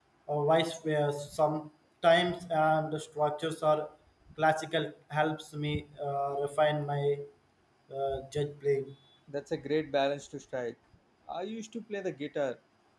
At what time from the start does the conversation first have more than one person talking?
none

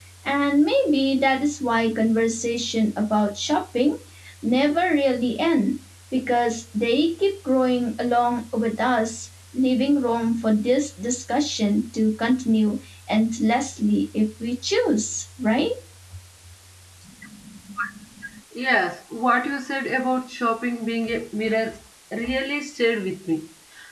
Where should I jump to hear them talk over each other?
none

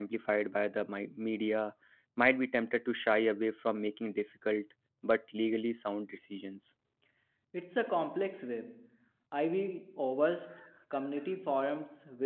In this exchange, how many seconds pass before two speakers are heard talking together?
none

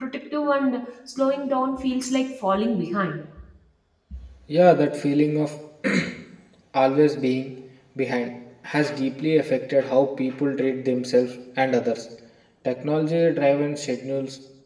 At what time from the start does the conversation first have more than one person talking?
none

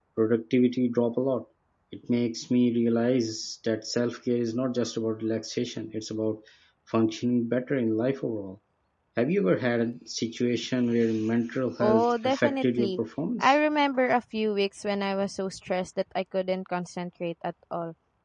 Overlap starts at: 11.8 s

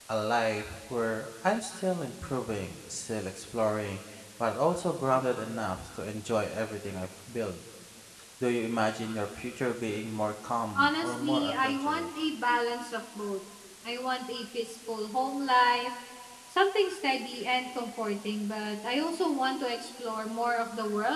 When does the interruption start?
10.8 s

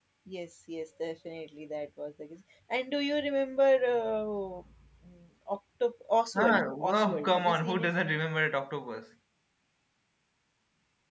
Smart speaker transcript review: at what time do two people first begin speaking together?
6.3 s

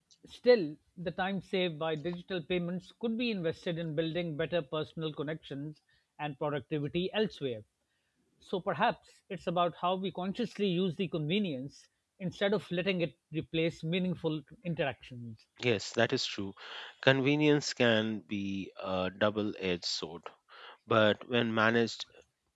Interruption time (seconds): none

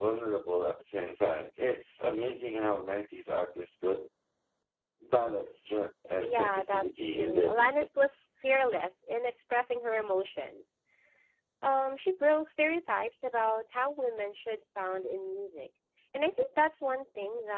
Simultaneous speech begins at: 6.2 s

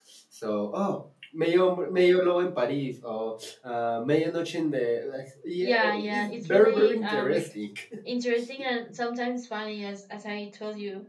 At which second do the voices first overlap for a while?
5.6 s

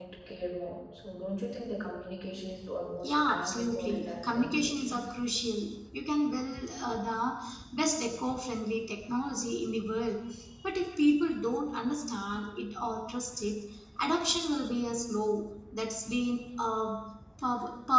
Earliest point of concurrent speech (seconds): 3.0 s

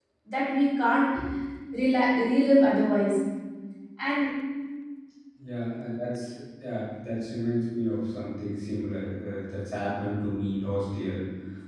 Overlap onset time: none

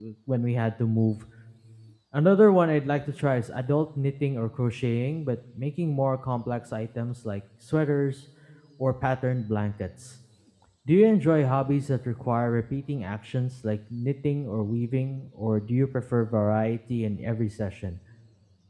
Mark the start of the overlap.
none

